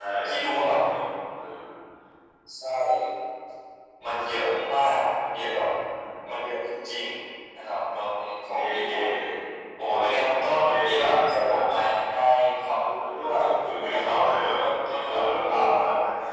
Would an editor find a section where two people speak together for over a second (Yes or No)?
Yes